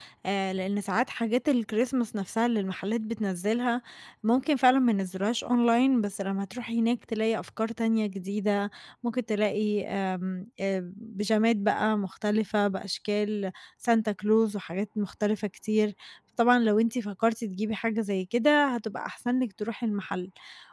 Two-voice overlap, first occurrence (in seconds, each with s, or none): none